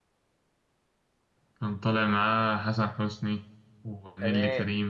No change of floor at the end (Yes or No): No